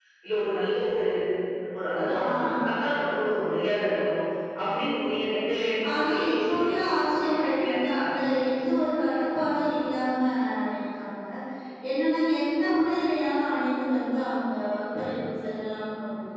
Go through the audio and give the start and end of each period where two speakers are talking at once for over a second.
5.9-8.1

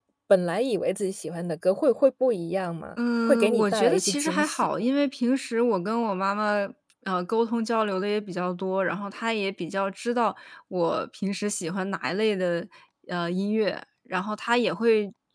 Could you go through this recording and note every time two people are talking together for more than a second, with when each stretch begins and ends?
3.3-4.7

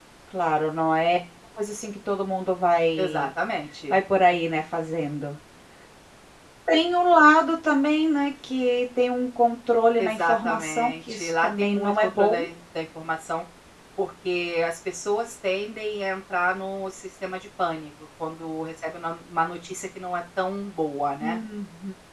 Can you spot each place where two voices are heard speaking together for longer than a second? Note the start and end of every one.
10.0-12.4

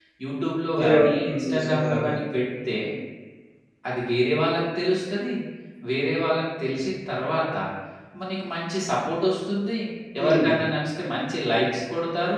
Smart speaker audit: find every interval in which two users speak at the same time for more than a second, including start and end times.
0.8-2.1

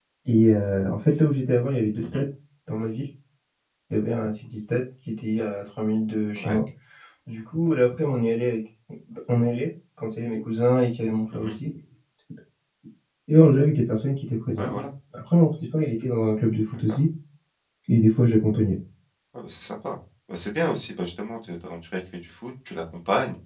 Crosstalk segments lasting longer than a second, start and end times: none

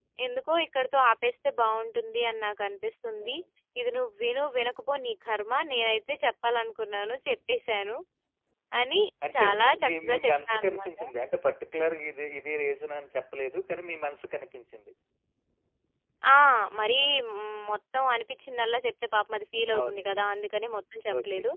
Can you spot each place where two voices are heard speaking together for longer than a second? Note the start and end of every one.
9.3-10.9

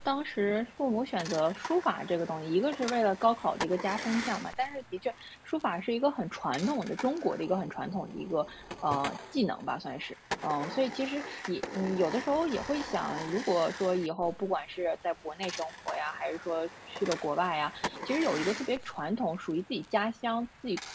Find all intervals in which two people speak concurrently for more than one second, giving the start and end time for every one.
none

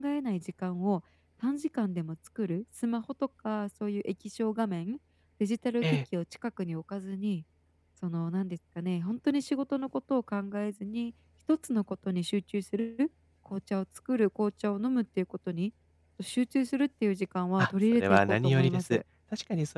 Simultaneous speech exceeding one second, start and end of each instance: 17.6-19.0

